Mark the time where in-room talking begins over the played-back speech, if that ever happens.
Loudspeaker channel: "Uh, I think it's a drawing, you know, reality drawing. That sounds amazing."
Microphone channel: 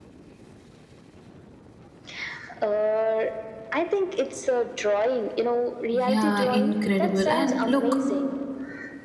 5.9 s

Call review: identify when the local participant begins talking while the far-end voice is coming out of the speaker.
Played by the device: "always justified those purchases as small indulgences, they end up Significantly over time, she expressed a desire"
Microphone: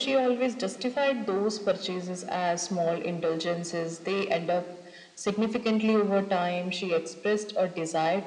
none

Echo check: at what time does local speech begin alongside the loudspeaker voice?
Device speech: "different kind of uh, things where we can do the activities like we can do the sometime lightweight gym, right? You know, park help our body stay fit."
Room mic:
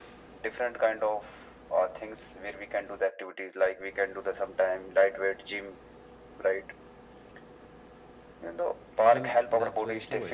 9.1 s

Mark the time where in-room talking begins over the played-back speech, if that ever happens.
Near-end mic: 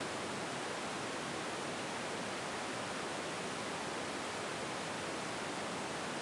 none

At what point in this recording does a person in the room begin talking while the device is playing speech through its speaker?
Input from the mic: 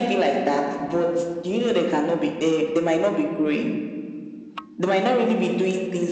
none

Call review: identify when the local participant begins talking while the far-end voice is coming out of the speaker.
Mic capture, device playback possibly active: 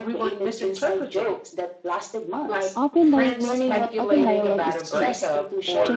2.7 s

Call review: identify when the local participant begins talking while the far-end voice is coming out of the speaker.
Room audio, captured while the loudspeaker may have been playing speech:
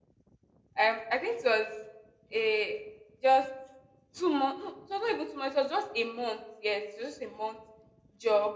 0.8 s

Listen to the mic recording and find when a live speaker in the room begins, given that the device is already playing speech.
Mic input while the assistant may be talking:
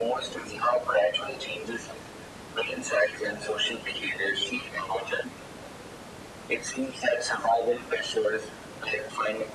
none

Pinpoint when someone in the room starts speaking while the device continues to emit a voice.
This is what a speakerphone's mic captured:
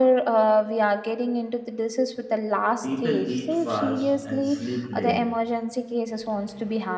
2.8 s

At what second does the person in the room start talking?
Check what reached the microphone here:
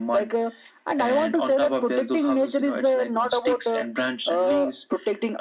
none

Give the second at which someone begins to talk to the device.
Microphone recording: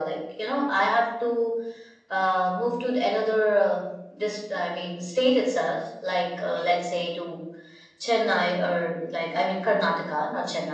none

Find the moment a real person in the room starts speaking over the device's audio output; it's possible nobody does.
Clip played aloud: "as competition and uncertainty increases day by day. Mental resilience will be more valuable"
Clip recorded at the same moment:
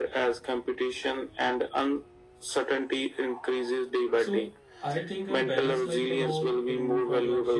4.1 s

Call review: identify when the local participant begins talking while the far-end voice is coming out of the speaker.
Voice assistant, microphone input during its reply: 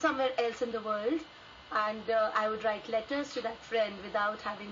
none

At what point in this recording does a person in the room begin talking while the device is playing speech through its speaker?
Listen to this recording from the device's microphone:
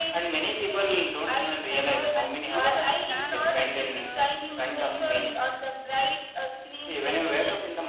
1.8 s

